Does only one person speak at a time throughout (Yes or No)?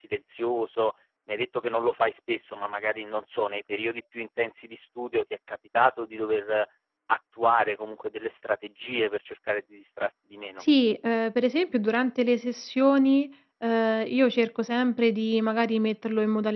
Yes